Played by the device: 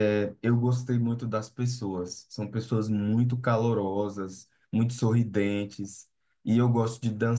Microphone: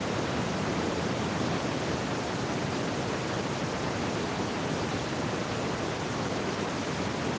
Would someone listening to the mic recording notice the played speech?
No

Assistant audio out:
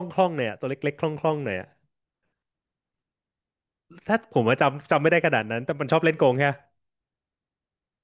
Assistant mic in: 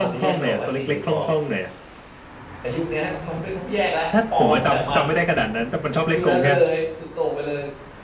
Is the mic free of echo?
No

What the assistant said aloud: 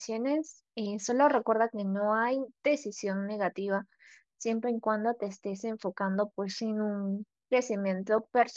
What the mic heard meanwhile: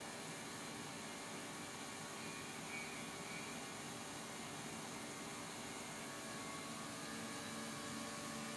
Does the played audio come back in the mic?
No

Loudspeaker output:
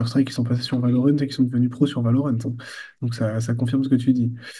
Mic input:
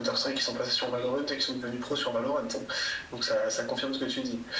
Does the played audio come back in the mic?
Yes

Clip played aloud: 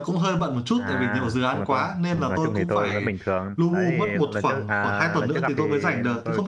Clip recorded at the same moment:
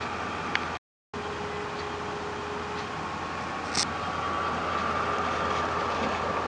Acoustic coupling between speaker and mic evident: No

